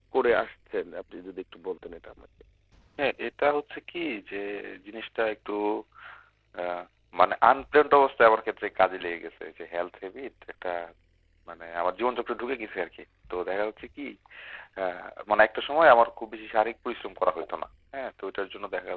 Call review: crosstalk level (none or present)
none